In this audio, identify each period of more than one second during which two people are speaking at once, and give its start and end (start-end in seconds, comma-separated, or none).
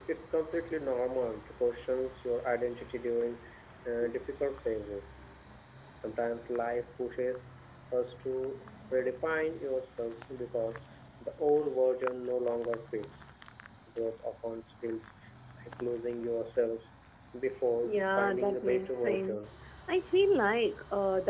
17.8-19.4